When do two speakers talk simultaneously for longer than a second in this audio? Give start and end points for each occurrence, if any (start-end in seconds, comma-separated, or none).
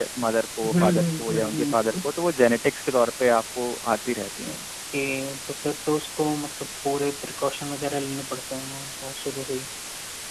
0.6-2.0